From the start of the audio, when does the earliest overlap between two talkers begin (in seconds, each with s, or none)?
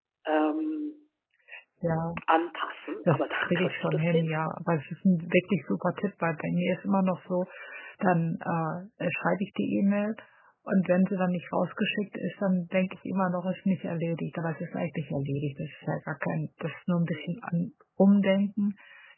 3.1 s